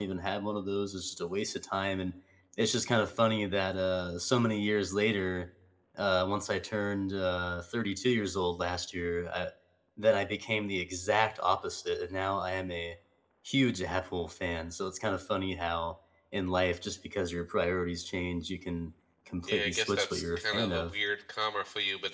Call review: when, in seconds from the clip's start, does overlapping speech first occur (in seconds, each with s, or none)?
19.4 s